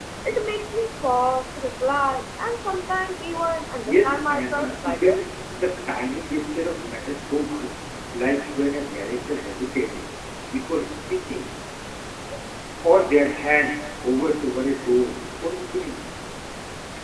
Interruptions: present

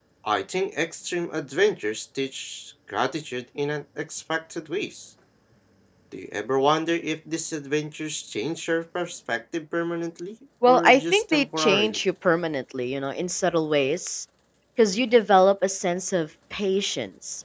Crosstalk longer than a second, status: present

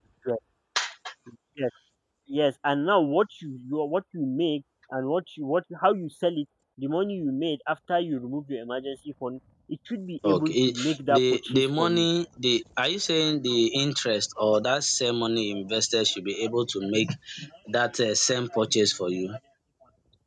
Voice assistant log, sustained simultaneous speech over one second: present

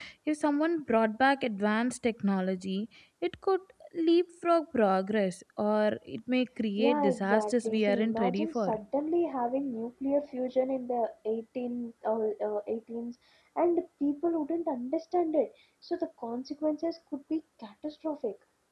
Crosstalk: present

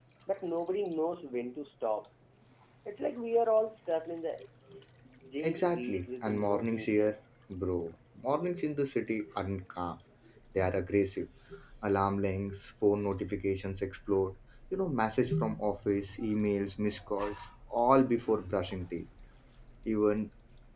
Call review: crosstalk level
present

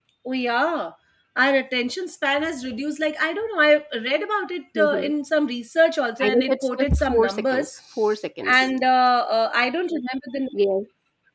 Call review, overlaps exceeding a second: present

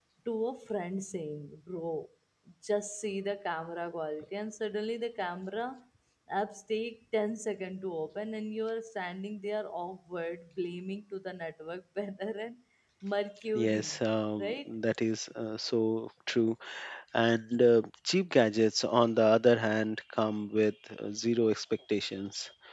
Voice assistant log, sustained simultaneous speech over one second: none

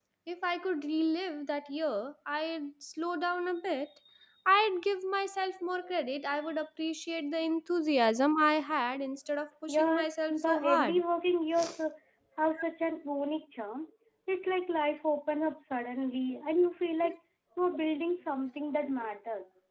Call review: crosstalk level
present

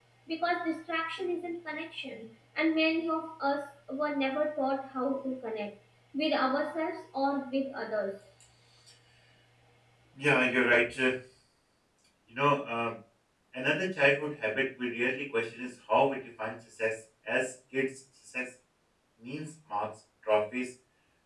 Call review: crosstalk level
none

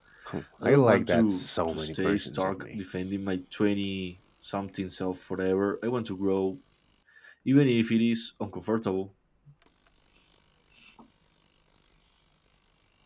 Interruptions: present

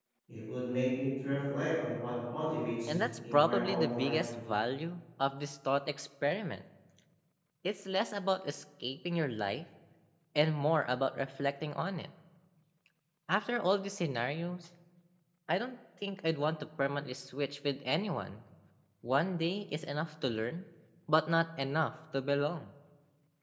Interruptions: present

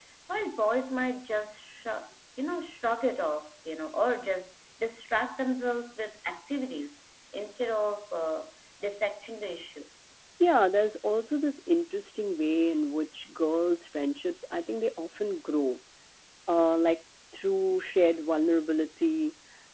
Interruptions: none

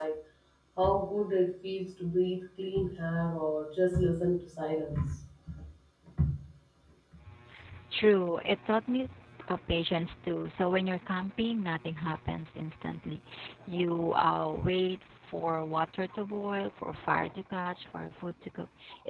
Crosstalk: none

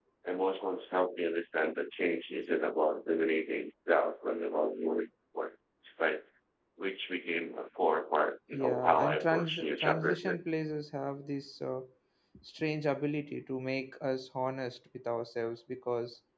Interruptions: present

